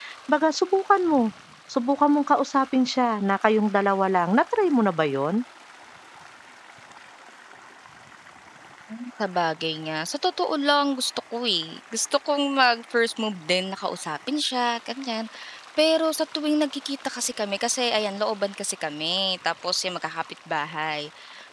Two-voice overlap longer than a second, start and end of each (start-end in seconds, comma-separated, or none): none